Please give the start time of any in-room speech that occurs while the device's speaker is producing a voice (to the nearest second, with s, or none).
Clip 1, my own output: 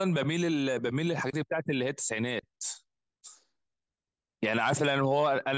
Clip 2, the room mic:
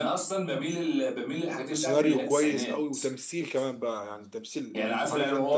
2 s